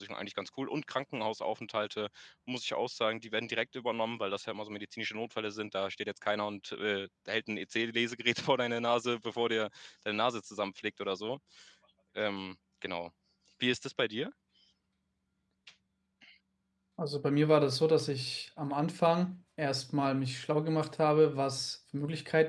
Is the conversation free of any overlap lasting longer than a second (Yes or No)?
Yes